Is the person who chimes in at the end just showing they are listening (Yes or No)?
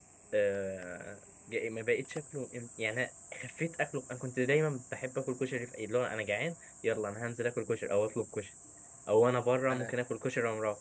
Yes